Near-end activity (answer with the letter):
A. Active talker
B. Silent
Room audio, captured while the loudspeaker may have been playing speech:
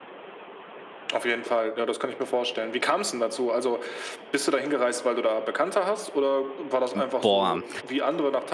A